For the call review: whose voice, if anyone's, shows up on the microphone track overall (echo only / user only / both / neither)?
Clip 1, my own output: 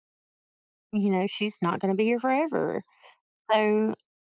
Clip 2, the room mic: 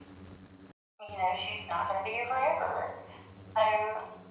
echo only